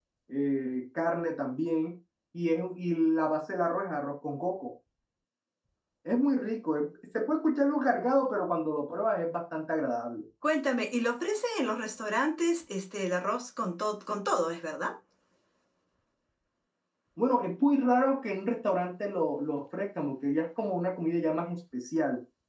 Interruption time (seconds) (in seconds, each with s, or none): none